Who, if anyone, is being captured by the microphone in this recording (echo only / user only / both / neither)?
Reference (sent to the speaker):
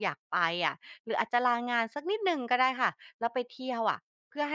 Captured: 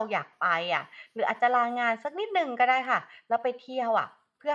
echo only